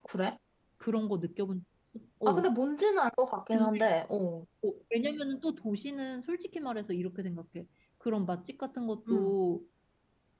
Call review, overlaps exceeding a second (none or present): none